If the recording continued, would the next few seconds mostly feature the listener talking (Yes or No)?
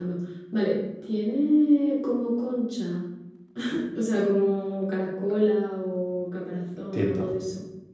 Yes